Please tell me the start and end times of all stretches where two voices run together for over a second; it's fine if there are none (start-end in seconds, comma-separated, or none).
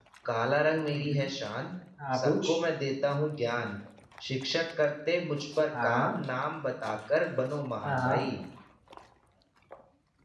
none